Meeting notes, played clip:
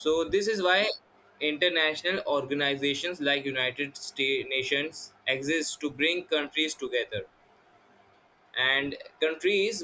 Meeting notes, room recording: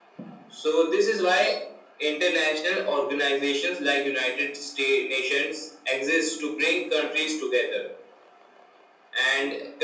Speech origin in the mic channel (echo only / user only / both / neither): echo only